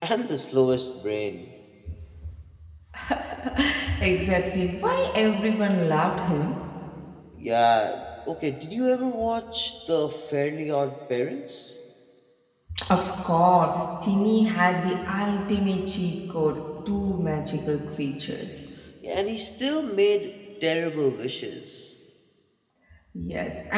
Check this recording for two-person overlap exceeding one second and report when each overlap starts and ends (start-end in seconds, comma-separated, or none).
none